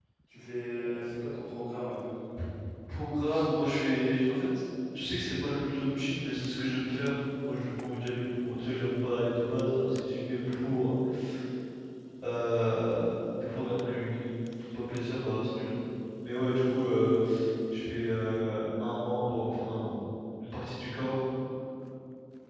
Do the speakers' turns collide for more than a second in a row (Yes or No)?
No